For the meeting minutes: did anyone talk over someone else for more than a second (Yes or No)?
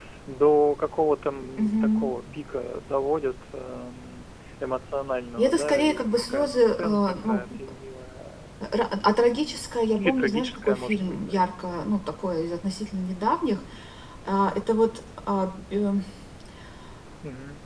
Yes